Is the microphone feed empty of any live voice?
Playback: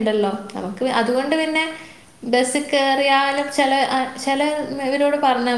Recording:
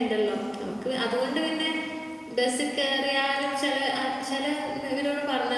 Yes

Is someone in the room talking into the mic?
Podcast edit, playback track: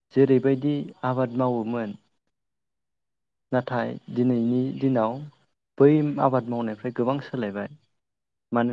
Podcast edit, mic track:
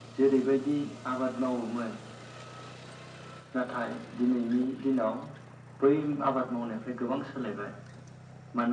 No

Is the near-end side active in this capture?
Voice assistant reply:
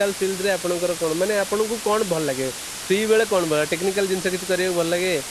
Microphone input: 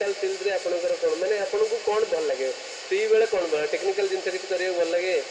No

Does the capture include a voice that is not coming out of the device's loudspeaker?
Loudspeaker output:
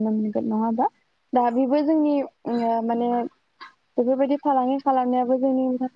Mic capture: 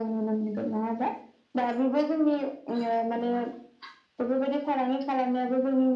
No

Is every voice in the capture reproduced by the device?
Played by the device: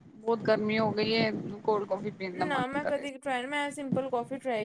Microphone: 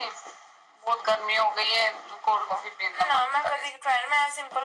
Yes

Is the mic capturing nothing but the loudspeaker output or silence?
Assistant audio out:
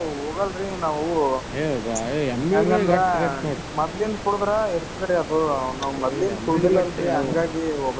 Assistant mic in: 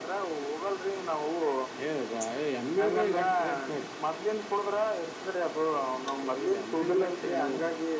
Yes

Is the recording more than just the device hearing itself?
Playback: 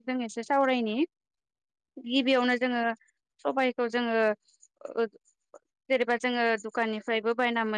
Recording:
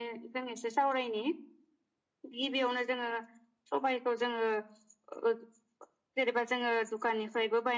No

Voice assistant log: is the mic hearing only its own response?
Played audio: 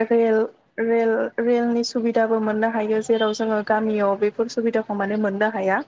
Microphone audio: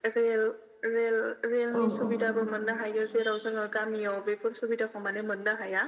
No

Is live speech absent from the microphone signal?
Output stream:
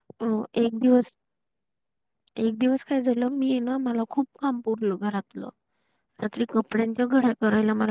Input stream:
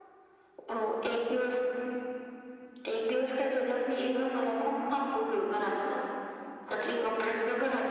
Yes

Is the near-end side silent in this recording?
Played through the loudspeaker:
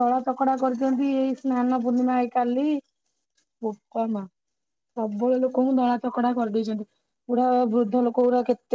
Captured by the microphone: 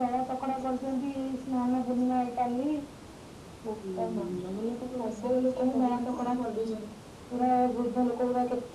No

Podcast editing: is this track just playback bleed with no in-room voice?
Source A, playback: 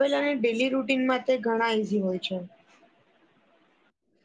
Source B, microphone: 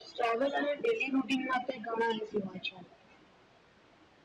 Yes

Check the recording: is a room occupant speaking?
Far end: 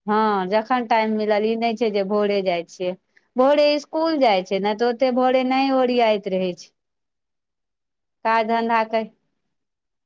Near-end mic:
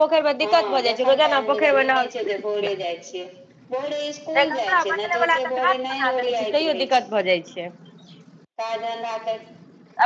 Yes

